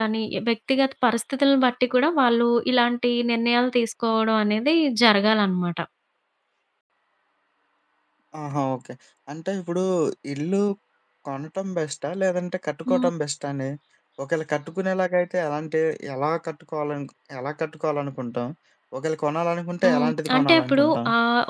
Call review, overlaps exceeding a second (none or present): present